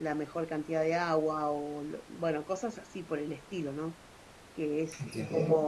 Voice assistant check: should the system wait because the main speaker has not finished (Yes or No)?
Yes